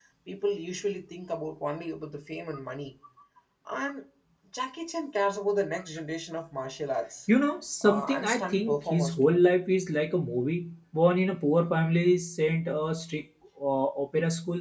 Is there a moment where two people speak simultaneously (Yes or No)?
Yes